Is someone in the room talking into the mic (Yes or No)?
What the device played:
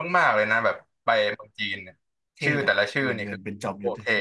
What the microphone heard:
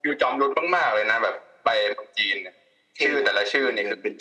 No